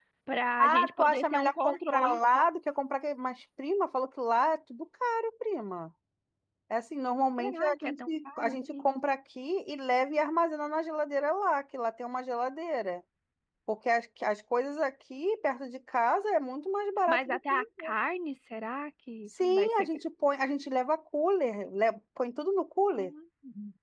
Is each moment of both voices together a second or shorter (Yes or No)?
No